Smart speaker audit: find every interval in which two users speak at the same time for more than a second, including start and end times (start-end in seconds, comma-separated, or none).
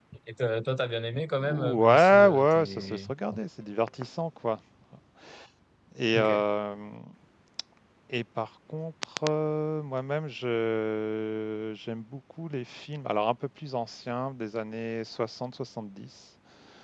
1.4-3.1